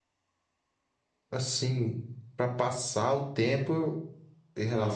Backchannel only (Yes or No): Yes